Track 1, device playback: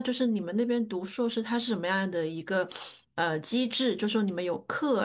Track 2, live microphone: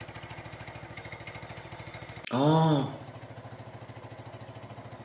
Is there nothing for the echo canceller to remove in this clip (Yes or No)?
Yes